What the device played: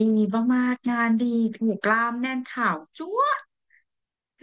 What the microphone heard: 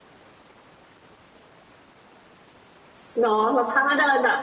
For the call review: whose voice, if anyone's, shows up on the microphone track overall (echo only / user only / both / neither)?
user only